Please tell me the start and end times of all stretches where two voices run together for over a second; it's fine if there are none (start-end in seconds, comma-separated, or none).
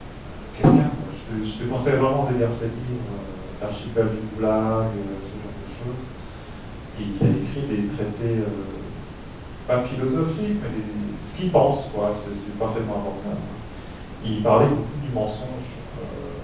none